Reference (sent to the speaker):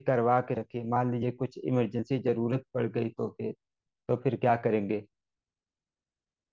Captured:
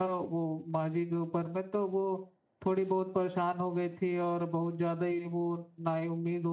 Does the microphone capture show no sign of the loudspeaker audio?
Yes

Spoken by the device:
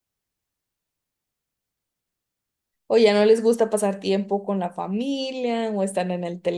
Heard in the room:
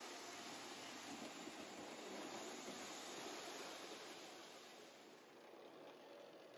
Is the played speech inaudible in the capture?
Yes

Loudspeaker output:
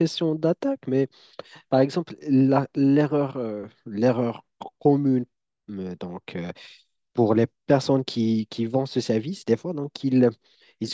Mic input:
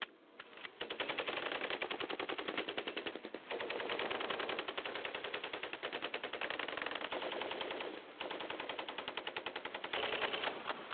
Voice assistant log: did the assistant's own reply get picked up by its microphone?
No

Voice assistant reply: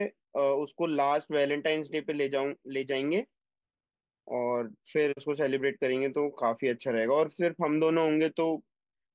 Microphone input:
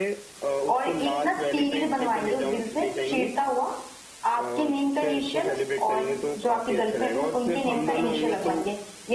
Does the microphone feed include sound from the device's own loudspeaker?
Yes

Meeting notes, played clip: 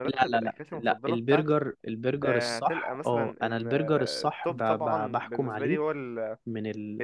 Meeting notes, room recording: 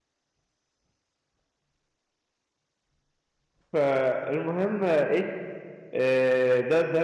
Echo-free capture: Yes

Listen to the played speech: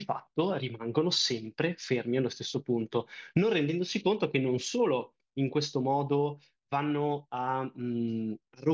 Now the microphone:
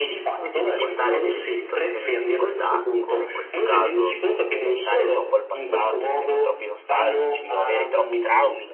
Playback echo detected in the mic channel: Yes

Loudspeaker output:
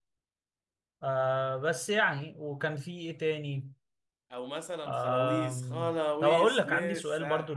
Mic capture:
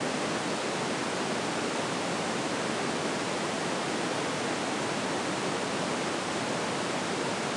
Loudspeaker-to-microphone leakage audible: No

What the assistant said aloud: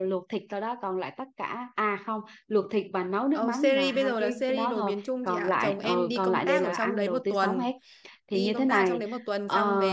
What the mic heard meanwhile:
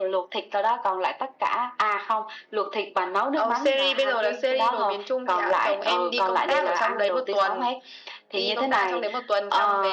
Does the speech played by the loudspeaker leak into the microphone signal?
Yes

